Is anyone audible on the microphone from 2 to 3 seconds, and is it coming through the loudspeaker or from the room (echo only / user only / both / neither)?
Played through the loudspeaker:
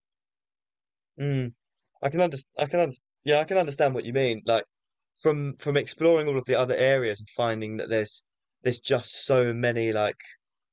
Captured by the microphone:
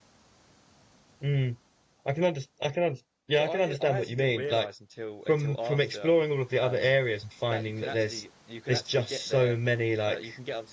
echo only